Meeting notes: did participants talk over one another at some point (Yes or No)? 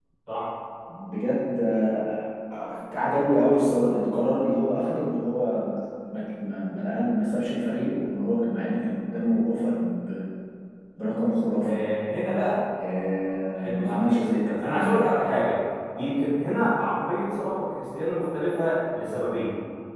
Yes